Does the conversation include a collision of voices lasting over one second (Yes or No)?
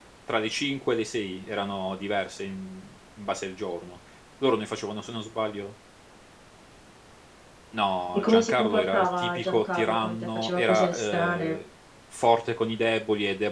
Yes